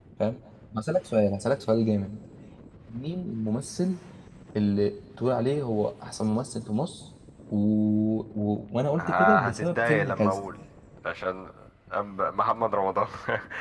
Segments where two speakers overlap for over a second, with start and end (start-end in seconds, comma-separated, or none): 9.0-10.4